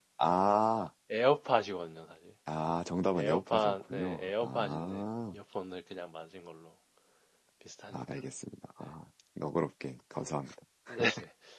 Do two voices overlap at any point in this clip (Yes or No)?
Yes